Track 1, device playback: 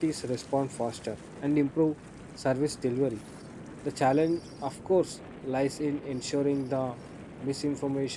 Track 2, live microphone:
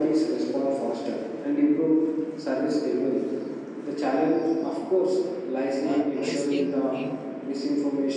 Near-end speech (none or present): present